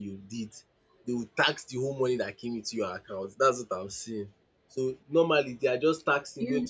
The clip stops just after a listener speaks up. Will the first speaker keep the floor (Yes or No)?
Yes